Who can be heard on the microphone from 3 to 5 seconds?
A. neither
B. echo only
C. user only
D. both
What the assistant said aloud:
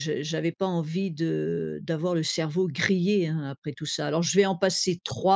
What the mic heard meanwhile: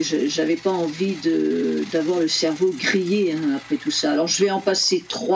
B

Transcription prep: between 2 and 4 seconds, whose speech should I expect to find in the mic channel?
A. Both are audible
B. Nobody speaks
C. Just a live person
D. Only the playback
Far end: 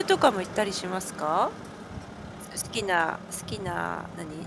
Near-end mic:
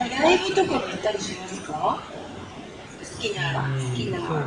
A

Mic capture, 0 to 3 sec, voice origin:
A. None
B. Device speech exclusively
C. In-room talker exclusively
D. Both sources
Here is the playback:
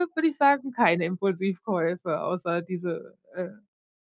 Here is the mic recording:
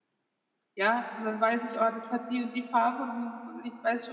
C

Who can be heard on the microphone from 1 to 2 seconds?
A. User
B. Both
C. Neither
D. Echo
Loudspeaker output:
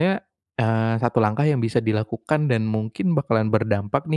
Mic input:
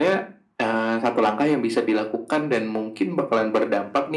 D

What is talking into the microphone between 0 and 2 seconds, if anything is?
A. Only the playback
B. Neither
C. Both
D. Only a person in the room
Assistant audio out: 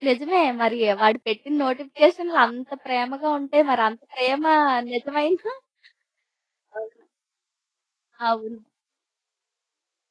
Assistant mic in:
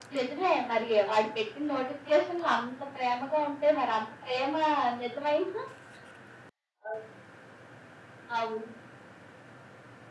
A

